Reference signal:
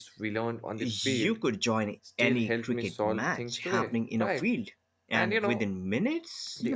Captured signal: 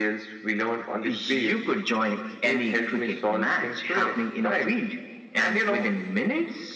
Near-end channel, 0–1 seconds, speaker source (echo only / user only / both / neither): echo only